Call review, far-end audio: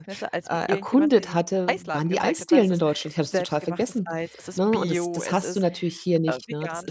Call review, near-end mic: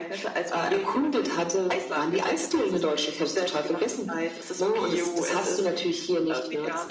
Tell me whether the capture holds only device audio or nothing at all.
Yes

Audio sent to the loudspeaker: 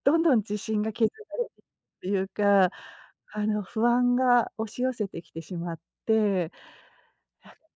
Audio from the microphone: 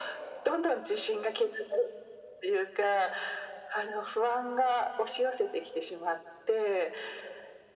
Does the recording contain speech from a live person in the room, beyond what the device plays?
No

